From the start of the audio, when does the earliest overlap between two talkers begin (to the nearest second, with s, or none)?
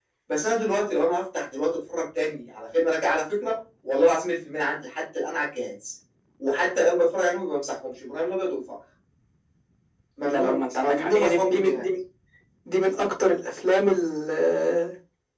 10 s